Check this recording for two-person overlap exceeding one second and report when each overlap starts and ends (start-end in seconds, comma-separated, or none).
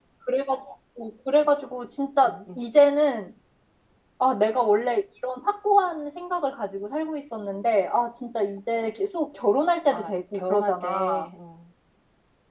9.9-11.3